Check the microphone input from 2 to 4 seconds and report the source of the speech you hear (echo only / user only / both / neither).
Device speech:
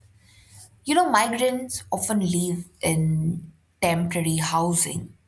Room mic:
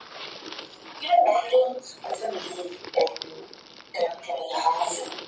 echo only